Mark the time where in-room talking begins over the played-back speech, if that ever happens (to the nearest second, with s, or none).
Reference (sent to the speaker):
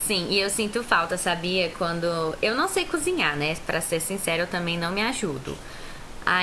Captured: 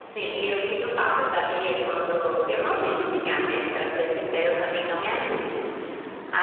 none